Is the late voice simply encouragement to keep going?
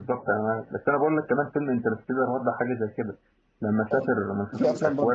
No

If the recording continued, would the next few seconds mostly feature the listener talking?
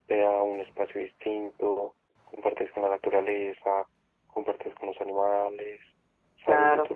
No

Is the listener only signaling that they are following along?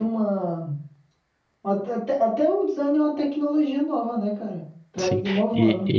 No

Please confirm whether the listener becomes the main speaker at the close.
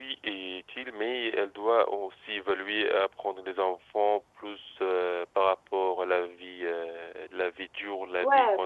Yes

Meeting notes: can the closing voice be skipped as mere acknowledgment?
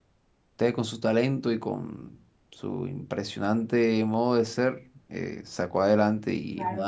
Yes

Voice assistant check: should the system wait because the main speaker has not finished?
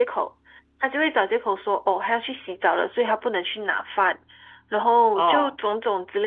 Yes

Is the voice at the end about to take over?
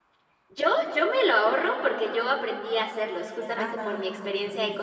No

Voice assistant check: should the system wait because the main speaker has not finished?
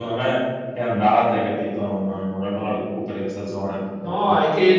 No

